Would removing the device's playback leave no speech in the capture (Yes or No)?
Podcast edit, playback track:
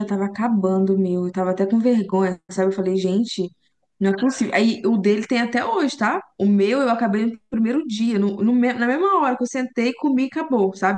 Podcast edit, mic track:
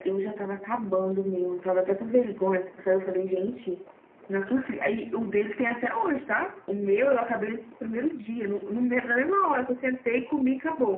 Yes